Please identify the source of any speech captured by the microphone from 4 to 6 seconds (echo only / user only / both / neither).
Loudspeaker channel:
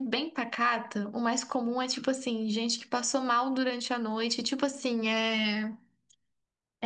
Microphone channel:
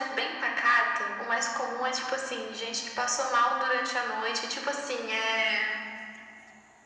echo only